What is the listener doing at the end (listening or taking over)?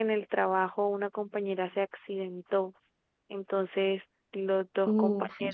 listening